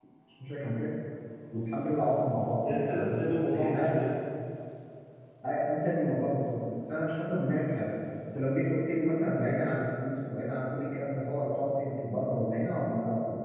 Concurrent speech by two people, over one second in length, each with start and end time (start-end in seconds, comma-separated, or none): none